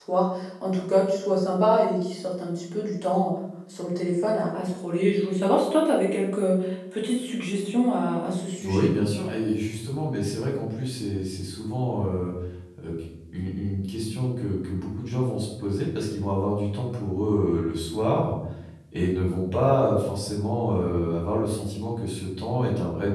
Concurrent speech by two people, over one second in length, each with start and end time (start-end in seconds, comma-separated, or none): none